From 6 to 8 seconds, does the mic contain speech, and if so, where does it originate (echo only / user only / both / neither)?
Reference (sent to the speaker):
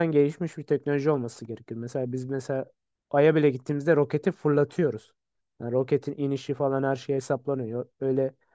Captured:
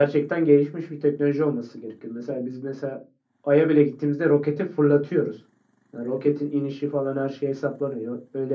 echo only